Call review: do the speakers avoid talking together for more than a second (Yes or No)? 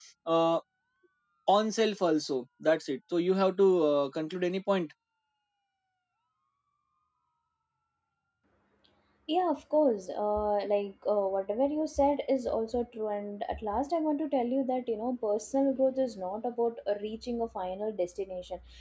Yes